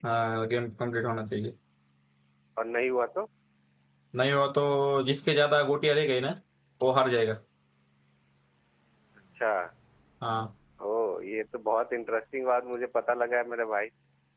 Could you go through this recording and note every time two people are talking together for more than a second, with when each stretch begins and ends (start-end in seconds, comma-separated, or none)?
none